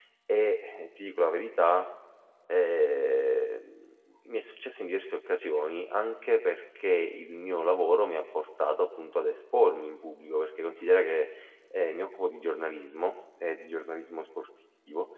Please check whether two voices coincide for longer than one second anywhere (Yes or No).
No